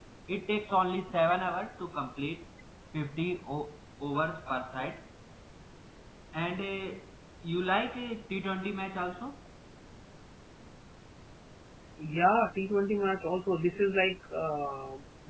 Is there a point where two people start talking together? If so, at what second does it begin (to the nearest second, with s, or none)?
none